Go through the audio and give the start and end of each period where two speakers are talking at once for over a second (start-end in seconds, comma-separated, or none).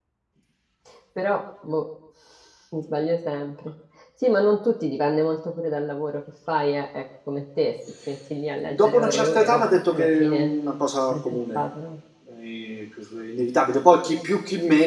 8.7-10.5